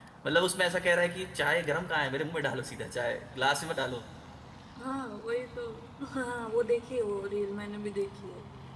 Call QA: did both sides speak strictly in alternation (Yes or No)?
Yes